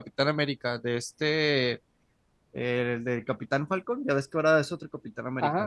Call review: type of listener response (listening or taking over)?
taking over